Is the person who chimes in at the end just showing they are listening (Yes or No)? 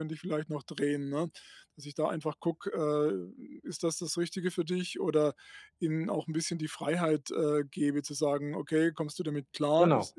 Yes